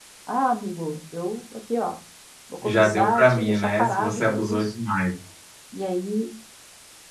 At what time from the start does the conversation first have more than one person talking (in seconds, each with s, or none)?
2.6 s